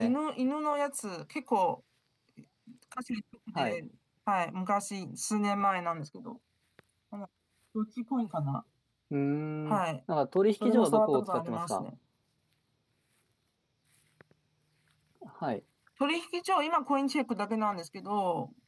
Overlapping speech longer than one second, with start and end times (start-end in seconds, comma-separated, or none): 10.6-11.8